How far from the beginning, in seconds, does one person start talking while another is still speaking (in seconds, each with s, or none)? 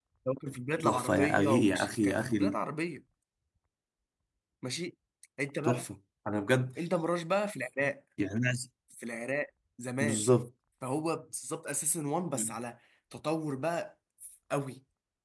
0.8 s